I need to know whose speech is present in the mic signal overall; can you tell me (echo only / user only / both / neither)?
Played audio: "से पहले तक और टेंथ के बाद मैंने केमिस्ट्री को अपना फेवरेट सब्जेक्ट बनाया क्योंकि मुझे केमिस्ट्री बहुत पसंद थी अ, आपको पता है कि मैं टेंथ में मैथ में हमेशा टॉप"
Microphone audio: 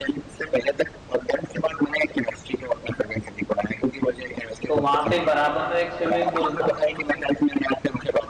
both